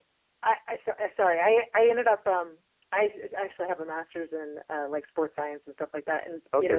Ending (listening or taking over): listening